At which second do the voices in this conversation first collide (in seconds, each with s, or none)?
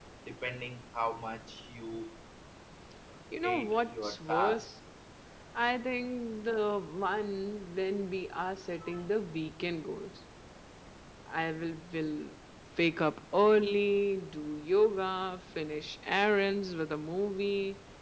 3.4 s